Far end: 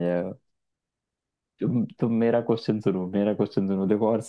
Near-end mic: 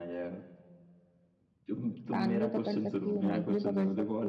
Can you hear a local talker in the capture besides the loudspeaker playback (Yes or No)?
Yes